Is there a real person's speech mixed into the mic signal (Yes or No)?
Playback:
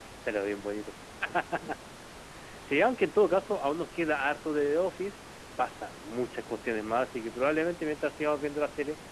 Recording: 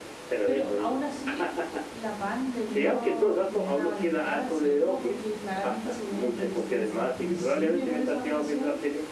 Yes